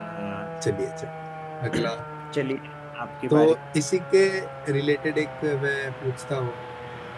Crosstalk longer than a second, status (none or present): none